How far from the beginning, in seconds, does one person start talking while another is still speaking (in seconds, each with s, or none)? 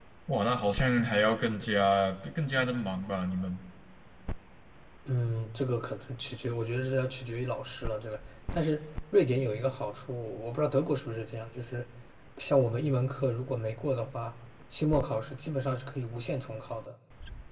none